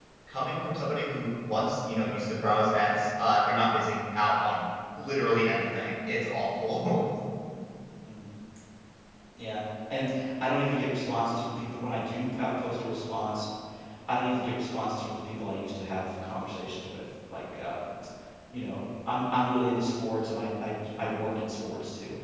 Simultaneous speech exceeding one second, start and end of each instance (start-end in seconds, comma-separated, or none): none